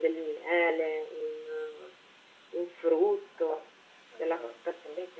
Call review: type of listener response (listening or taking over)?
listening